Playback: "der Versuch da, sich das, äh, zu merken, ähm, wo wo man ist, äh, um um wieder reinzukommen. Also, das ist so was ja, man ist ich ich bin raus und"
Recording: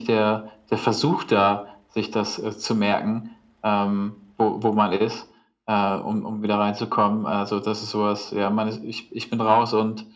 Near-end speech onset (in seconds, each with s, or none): none